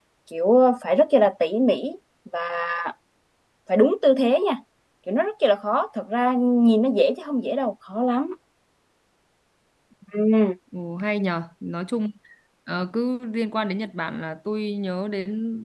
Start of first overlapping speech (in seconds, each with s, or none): none